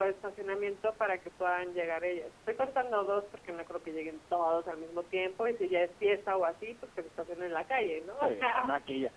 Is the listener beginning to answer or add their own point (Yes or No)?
Yes